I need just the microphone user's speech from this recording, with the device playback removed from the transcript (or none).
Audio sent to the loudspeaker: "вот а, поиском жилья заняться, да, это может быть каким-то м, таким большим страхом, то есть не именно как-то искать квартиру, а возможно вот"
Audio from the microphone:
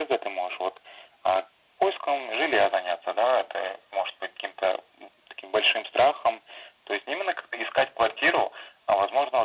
none